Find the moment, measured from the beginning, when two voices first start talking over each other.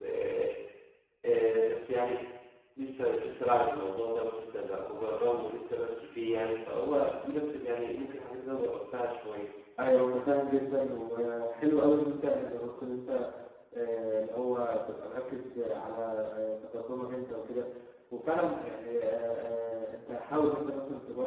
none

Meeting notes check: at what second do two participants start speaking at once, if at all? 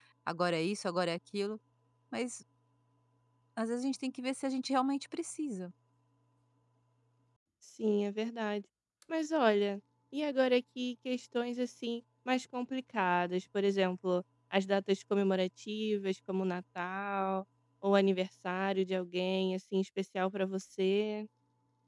none

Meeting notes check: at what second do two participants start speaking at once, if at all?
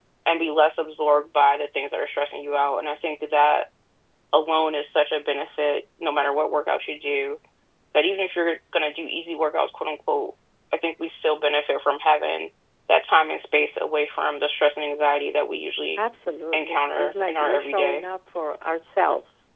16.5 s

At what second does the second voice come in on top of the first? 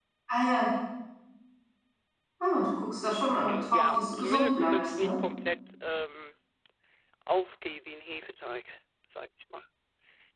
3.5 s

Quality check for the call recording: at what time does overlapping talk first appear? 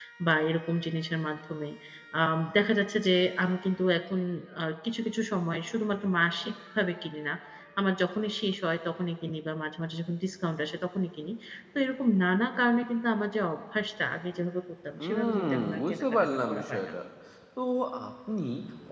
15.0 s

